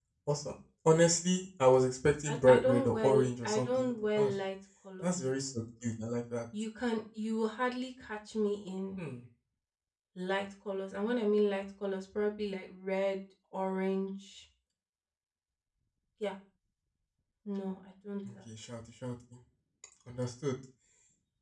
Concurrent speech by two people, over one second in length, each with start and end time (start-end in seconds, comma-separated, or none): 2.3-4.3